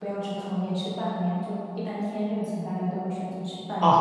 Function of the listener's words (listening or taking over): taking over